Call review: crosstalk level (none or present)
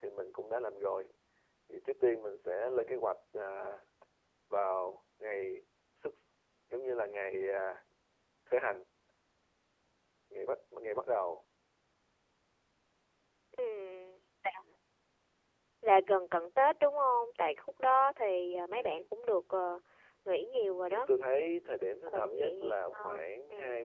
present